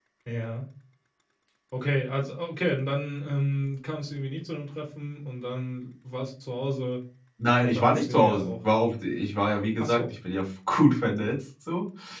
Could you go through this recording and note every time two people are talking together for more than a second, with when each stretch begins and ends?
7.6-8.9

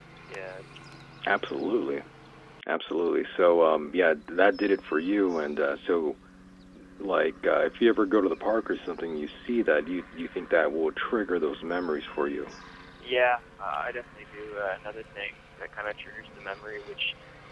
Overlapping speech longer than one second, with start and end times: none

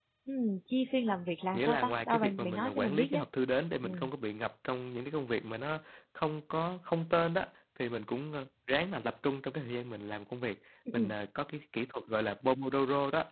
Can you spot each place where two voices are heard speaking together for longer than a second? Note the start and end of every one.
1.5-3.2

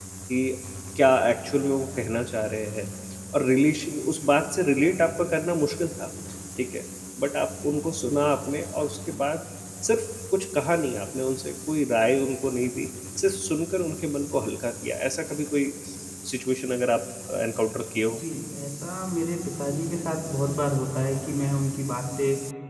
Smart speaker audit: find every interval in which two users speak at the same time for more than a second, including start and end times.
none

